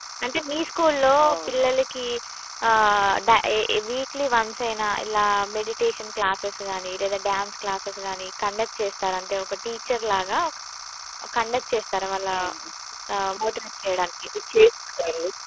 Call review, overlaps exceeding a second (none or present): none